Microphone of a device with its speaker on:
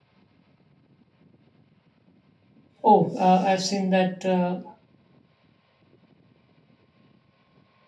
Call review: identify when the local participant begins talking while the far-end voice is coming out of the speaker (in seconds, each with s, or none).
2.8 s